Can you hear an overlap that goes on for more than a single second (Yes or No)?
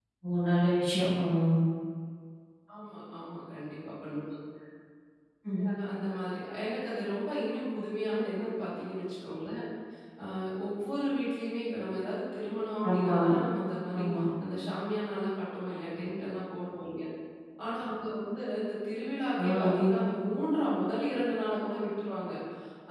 No